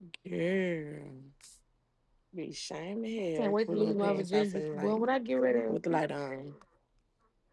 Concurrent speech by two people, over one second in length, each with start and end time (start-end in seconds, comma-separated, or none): 3.4-5.0